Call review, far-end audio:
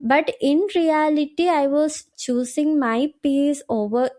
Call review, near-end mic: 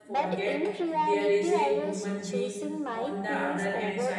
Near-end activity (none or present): present